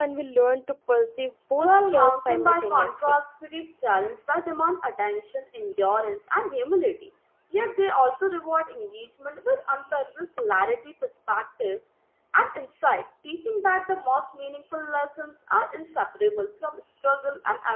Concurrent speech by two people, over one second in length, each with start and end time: 1.6-3.2

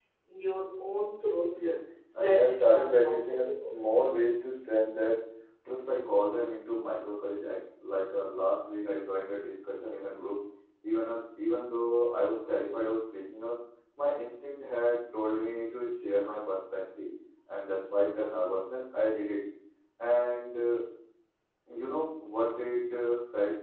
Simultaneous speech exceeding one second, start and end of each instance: 2.1-3.7

